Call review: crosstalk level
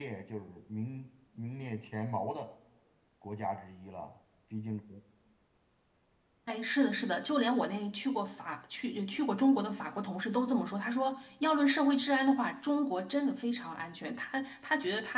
none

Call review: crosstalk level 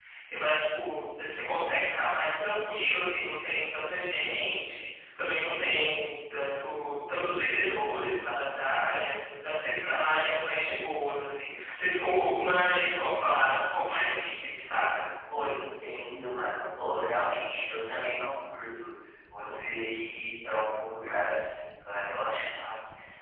none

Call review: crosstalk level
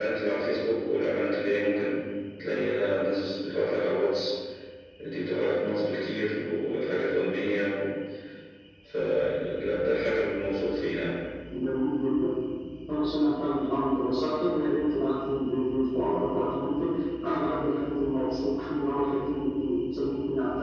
none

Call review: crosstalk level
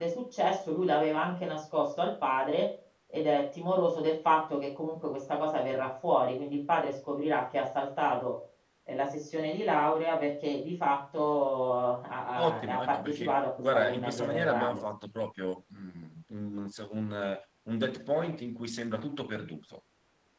present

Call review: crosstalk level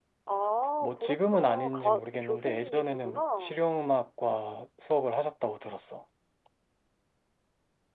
present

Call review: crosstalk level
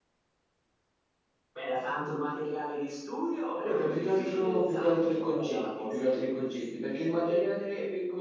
present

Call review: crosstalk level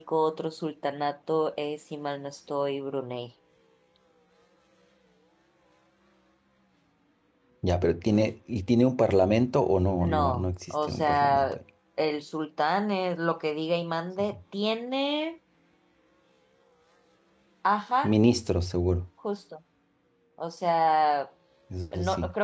present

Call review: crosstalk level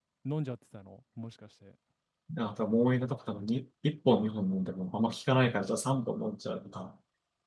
none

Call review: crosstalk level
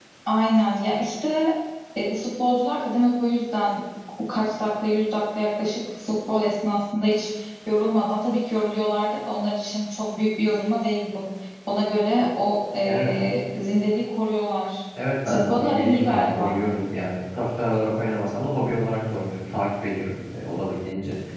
present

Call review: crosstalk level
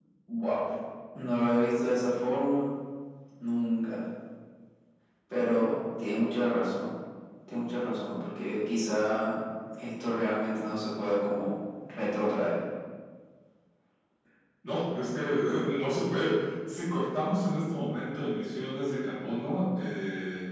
none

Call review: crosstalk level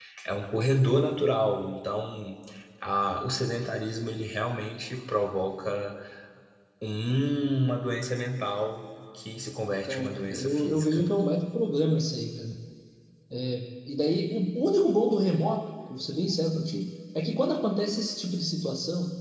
present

